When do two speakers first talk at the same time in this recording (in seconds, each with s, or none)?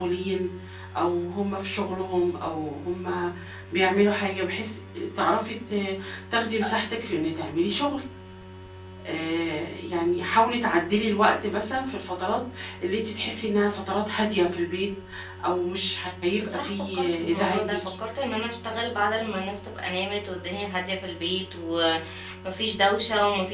16.4 s